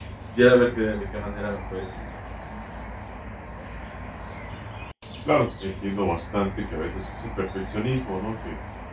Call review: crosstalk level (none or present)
none